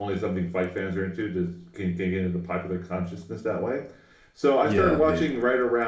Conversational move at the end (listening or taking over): listening